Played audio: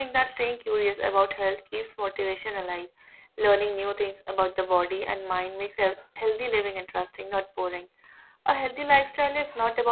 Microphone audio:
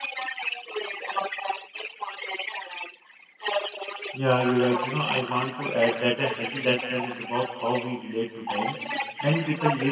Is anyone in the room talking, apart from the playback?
Yes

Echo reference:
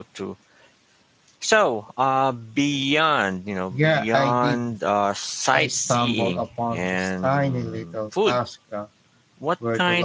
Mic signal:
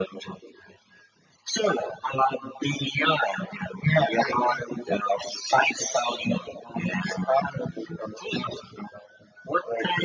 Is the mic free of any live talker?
Yes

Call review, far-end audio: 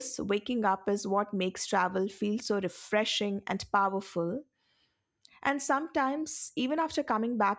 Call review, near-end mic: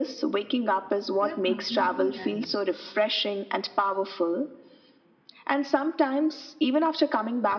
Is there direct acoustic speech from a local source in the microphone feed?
Yes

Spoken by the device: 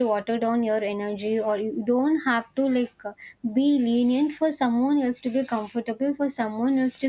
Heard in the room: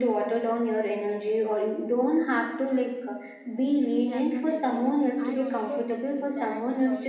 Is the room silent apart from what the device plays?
No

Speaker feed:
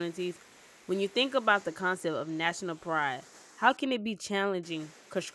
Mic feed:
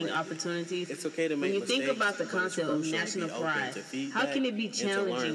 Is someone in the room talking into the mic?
Yes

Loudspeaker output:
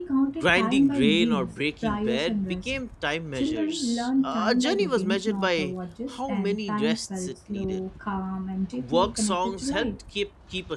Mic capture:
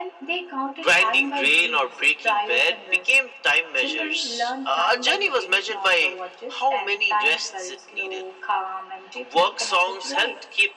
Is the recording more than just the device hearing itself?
No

